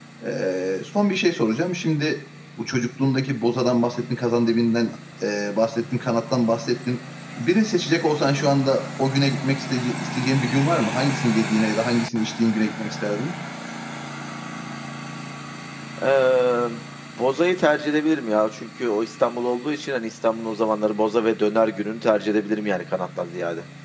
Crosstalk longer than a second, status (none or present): none